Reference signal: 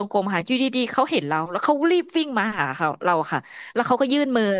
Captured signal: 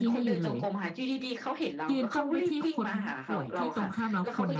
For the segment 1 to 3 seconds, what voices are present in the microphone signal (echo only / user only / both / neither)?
both